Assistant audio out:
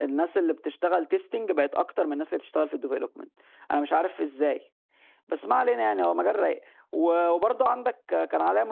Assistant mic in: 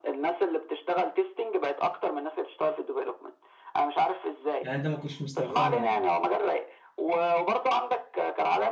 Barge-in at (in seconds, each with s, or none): 4.6 s